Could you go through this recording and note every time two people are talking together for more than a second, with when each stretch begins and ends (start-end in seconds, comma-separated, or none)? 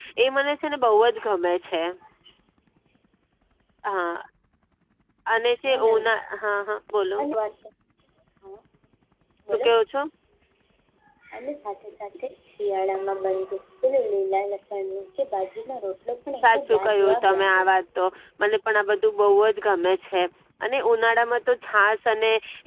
16.4-17.7